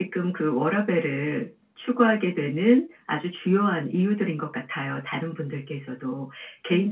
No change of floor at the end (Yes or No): Yes